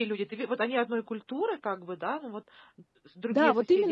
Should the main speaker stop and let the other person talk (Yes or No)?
Yes